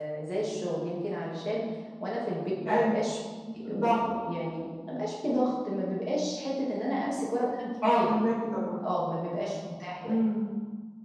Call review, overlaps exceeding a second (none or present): none